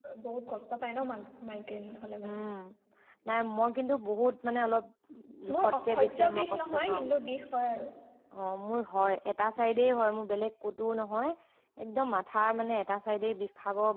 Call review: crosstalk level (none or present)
present